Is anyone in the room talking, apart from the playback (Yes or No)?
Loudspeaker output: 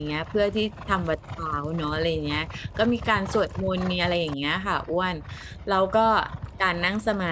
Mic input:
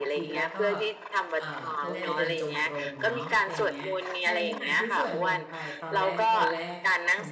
Yes